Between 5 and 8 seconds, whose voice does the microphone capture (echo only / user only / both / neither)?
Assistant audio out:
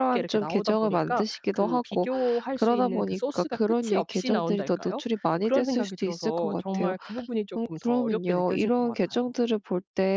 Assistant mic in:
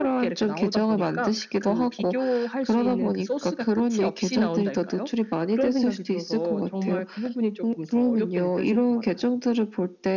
echo only